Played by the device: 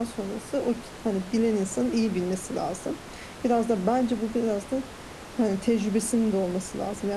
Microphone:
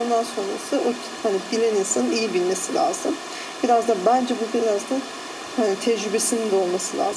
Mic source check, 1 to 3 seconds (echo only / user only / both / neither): echo only